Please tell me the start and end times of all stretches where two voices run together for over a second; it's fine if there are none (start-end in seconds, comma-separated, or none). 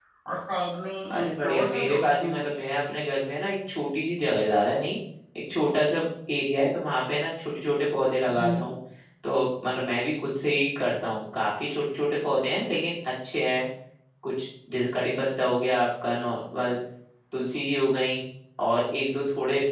1.1-2.5